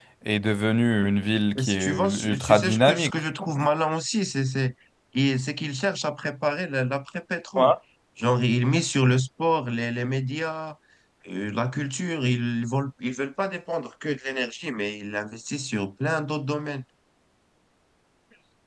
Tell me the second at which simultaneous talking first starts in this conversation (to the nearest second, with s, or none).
2 s